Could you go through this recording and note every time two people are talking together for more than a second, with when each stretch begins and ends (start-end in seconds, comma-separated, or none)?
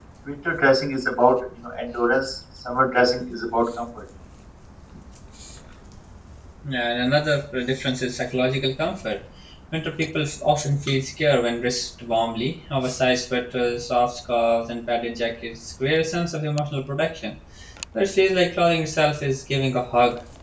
none